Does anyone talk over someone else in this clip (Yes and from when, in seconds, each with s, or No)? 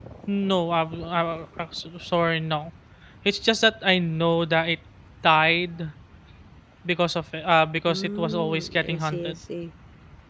Yes, from 7.9 s